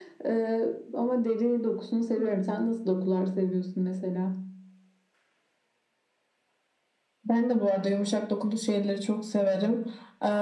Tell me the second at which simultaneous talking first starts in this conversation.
none

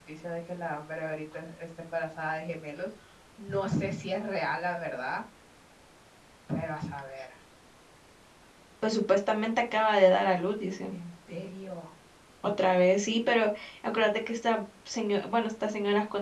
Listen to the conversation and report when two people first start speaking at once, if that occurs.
none

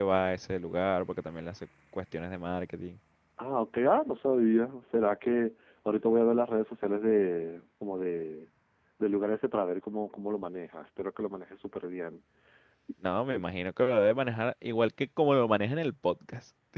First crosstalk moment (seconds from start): none

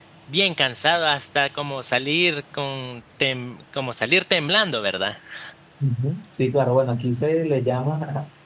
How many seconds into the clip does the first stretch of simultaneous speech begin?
none

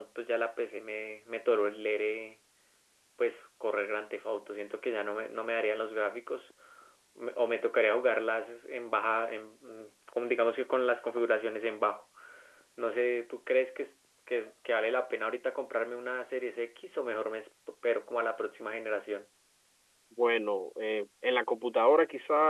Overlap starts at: none

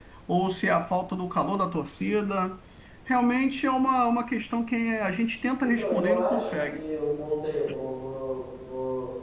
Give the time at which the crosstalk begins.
5.6 s

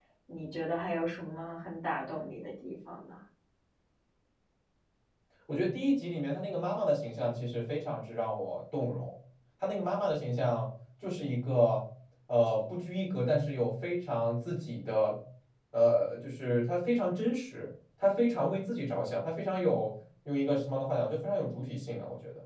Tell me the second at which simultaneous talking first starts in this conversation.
none

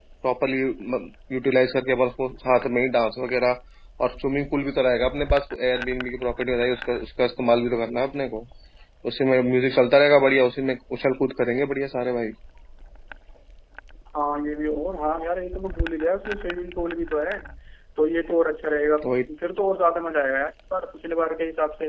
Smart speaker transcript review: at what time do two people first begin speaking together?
none

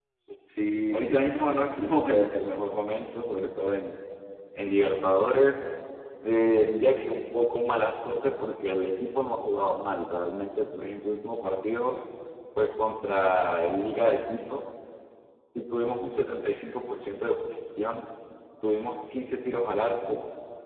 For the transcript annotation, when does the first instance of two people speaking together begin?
0.9 s

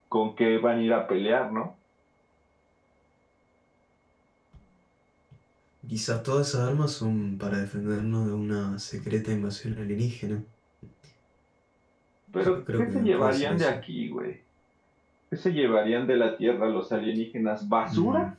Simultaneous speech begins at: 12.4 s

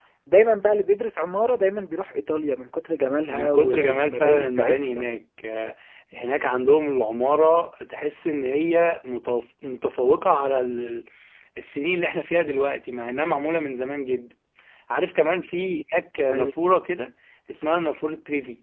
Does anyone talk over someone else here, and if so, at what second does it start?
3.3 s

